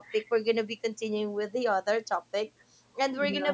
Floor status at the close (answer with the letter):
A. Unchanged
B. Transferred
A